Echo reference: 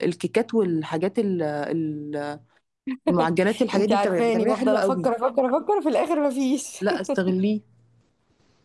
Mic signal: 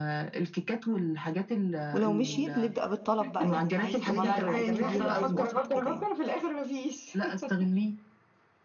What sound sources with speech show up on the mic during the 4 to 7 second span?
both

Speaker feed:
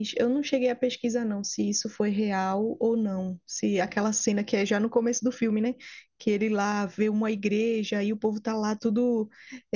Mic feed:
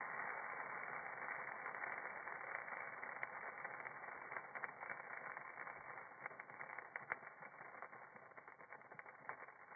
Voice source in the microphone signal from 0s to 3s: neither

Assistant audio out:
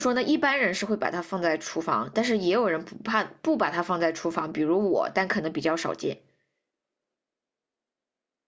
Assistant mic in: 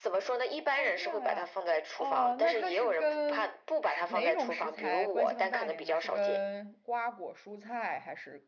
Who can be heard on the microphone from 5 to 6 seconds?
both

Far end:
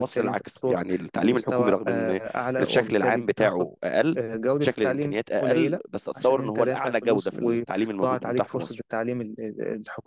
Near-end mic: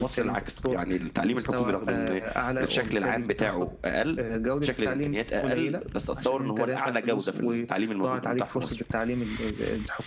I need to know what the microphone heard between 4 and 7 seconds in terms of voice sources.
echo only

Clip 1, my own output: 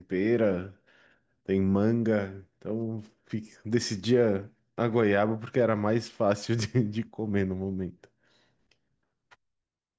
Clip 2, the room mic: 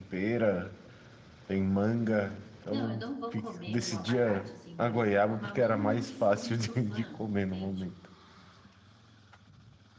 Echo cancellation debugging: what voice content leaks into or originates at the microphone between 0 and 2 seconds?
echo only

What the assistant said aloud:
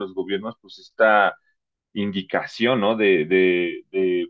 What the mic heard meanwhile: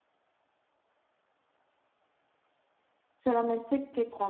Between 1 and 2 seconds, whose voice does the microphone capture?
neither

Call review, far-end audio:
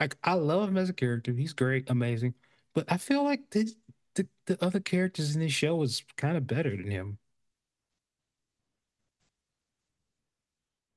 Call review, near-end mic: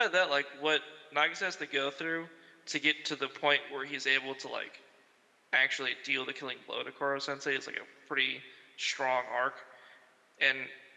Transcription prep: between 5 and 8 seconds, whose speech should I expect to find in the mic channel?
user only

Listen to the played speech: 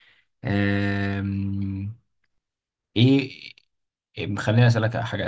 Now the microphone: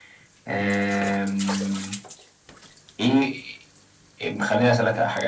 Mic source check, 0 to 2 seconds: echo only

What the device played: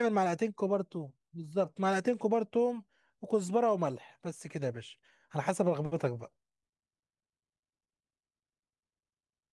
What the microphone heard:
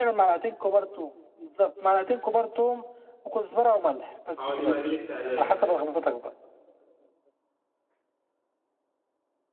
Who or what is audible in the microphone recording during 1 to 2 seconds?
echo only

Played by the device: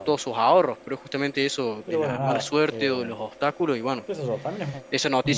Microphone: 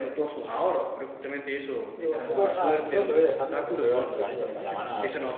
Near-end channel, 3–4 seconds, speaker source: both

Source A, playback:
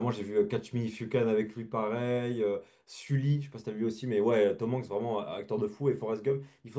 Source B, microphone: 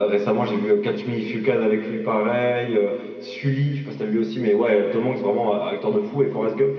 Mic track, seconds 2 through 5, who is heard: echo only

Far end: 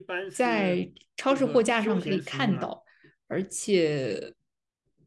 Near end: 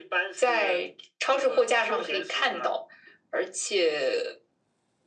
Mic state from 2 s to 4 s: echo only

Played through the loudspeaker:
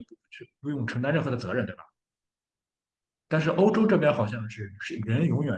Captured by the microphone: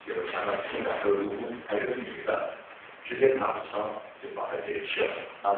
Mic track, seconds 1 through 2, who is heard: user only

